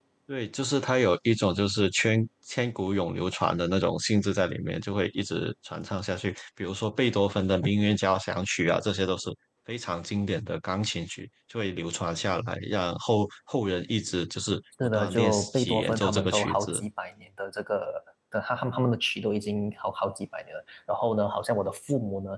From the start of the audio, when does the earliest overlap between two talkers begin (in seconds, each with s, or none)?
14.8 s